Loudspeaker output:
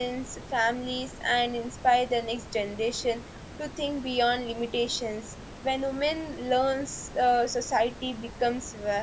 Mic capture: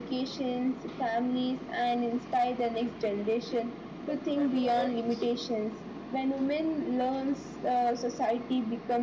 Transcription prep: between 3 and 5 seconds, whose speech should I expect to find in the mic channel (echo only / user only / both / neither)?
both